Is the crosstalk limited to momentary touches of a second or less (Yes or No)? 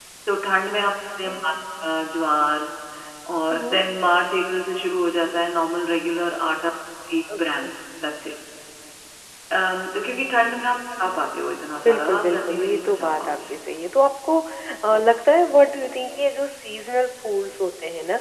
No